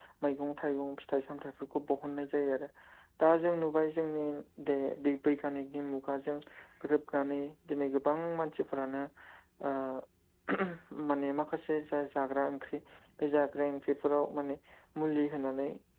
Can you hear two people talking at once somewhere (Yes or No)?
No